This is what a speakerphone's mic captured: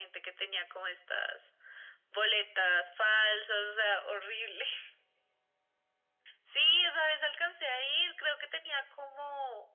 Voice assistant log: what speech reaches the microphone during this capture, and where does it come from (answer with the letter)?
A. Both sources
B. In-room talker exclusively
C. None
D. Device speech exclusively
D